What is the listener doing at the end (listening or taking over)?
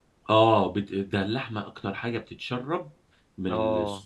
listening